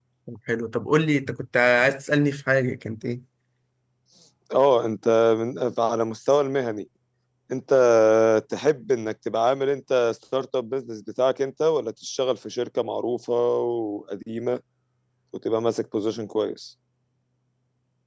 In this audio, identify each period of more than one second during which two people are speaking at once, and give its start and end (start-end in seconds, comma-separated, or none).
none